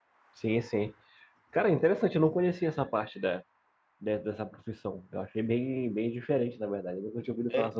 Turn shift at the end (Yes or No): Yes